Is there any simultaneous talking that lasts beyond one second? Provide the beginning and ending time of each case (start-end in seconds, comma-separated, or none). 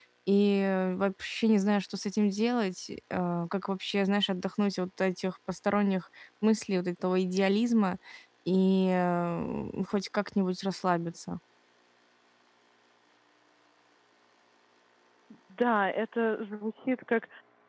none